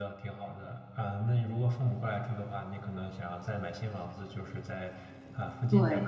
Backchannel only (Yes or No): Yes